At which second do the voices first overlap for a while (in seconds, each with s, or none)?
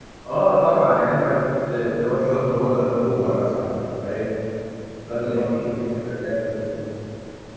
2.1 s